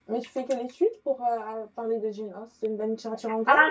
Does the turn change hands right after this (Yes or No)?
Yes